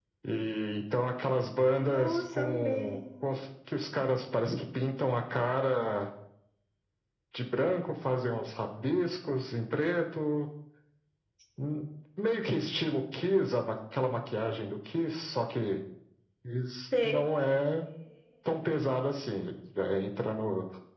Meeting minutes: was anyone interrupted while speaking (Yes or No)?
Yes